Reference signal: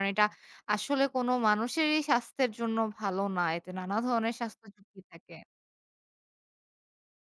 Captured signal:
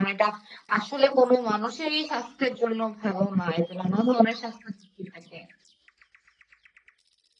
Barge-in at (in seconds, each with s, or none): none